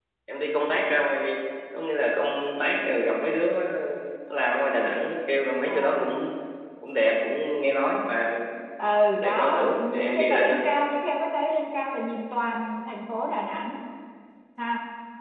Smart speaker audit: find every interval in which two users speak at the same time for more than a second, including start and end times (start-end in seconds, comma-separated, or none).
9.2-10.6